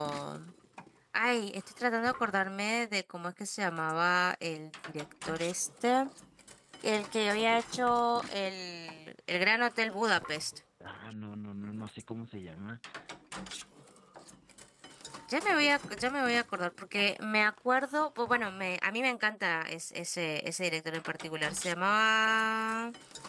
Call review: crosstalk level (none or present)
none